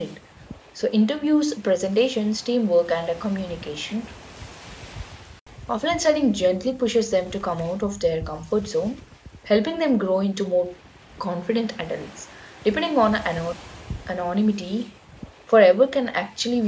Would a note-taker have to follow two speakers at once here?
No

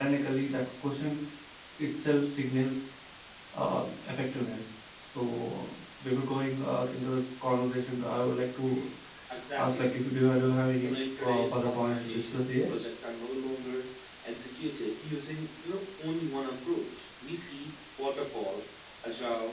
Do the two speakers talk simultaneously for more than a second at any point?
Yes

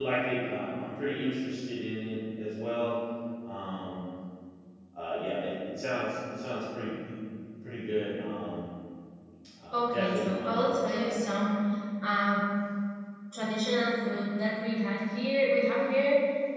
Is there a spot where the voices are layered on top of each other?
Yes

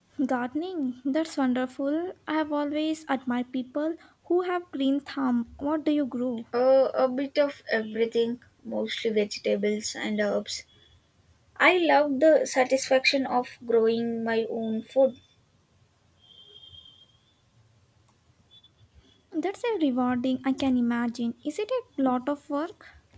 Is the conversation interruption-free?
Yes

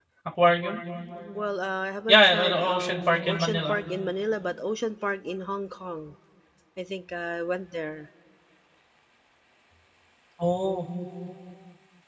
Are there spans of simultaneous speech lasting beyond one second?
Yes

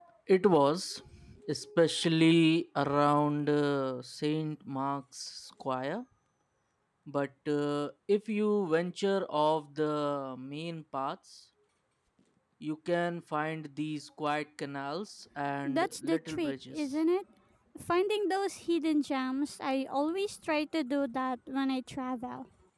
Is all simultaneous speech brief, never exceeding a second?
No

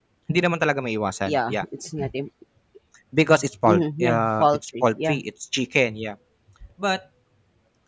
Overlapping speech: Yes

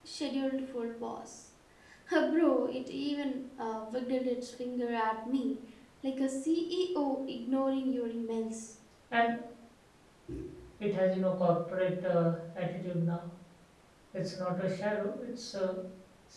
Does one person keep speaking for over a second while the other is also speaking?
No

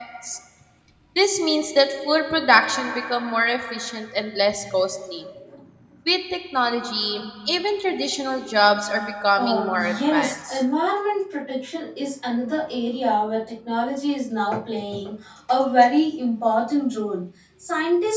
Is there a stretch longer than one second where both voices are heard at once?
Yes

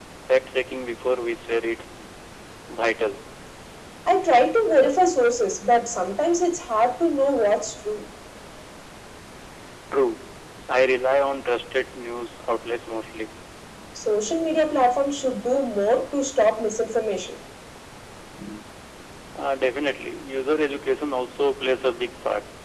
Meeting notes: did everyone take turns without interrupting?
Yes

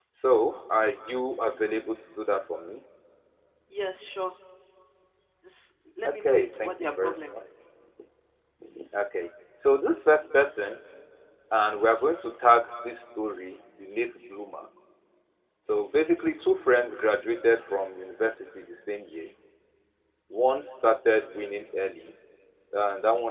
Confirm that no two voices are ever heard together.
No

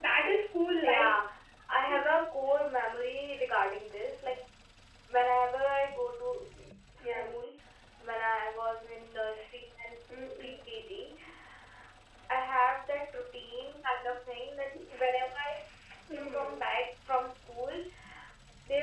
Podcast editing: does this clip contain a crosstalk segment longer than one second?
No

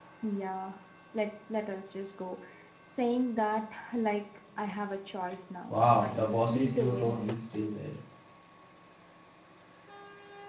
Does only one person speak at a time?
No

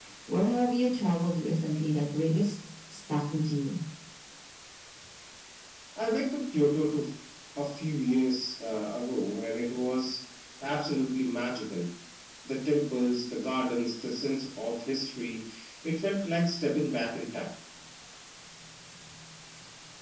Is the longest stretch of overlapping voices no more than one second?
Yes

